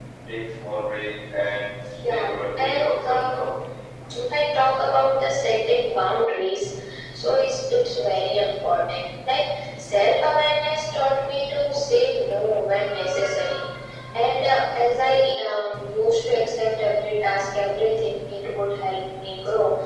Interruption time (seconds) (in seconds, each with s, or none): 2.0 s